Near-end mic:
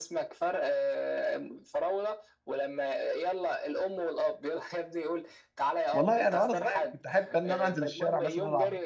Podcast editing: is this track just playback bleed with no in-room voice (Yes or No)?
No